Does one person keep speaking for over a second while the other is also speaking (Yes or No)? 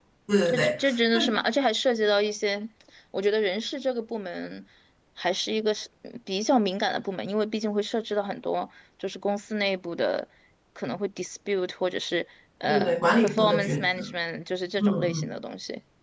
Yes